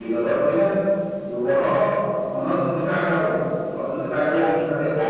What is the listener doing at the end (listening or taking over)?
taking over